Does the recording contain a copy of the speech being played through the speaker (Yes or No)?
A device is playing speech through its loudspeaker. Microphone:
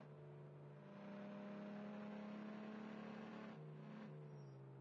No